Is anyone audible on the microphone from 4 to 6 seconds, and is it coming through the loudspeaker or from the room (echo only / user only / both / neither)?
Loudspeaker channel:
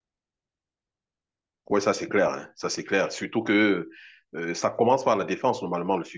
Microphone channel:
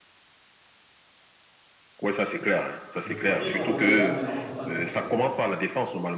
both